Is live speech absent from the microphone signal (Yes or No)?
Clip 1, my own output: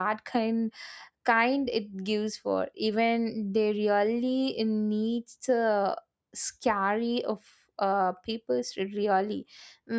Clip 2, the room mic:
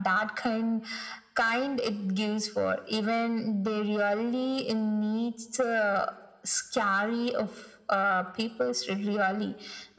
Yes